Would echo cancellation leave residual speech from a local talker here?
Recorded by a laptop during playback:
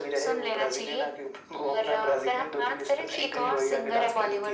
No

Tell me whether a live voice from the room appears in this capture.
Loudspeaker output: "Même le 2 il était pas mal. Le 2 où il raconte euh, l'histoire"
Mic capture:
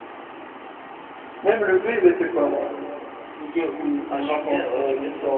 Yes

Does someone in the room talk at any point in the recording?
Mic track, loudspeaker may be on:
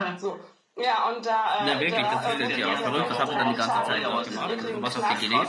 Yes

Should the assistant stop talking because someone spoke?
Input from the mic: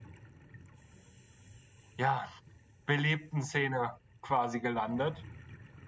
Yes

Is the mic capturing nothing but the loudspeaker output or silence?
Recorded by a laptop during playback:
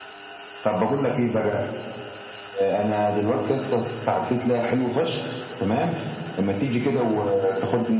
Yes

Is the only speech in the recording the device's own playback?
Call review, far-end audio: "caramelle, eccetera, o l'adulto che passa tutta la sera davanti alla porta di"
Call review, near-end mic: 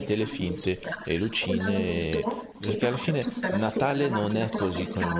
No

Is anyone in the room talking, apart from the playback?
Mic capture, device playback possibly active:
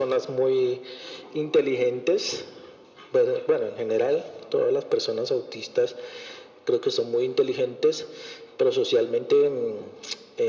No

